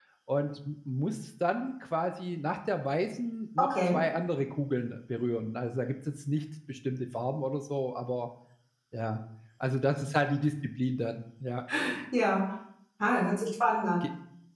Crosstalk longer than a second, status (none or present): none